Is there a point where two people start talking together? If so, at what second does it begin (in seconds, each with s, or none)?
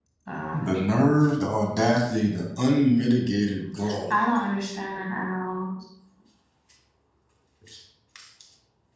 none